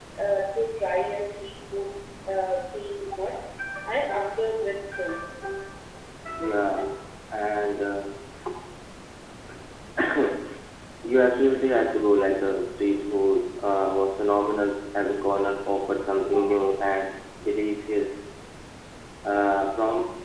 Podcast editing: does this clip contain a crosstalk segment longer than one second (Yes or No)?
No